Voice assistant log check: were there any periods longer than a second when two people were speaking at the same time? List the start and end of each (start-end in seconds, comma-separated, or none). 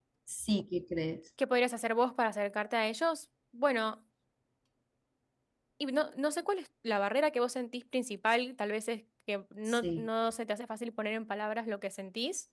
none